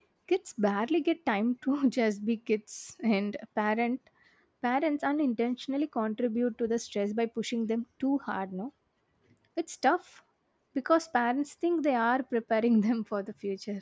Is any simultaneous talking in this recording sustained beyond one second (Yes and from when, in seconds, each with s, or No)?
No